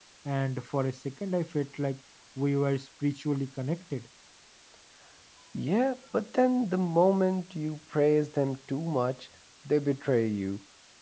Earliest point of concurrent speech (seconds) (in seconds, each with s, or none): none